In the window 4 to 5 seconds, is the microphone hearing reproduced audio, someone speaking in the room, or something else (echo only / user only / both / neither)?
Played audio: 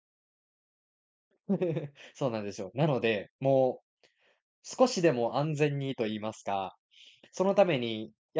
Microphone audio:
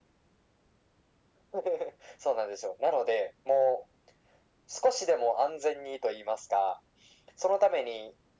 echo only